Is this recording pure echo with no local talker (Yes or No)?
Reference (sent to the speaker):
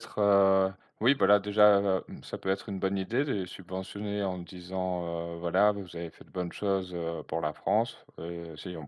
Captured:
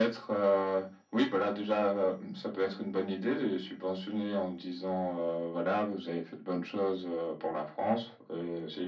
Yes